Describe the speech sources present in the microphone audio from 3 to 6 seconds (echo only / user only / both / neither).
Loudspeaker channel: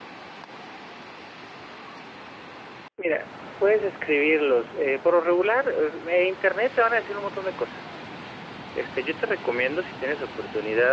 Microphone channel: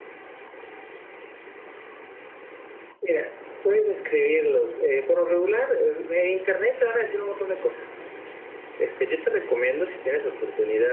echo only